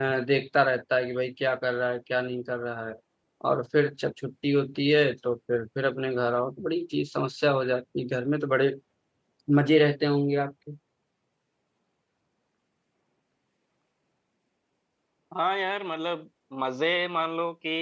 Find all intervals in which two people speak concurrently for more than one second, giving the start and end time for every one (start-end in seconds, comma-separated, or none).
none